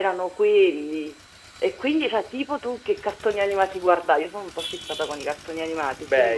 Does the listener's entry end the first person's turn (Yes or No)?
Yes